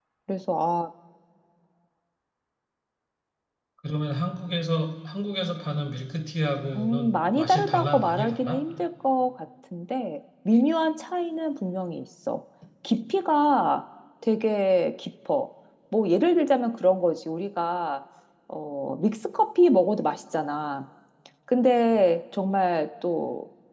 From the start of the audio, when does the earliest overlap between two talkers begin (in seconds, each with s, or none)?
6.7 s